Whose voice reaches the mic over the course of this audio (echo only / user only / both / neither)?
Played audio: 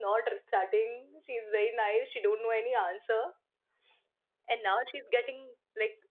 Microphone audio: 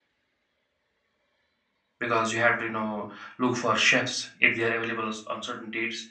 user only